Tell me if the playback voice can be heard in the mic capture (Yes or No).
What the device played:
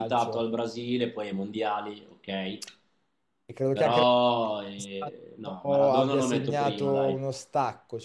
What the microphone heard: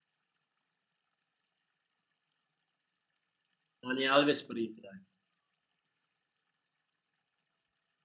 No